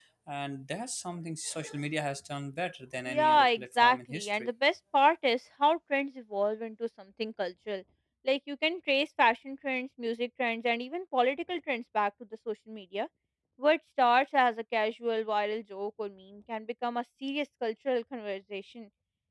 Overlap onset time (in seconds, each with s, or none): 3.0 s